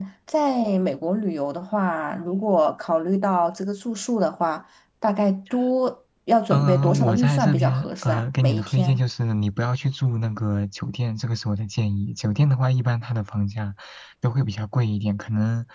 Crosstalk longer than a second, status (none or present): present